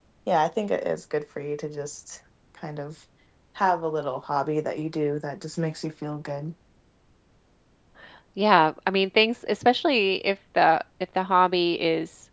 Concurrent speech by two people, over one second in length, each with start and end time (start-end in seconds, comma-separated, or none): none